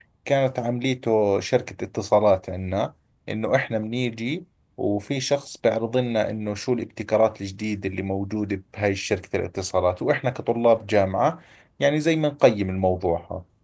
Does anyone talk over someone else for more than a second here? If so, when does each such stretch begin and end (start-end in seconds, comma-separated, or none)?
none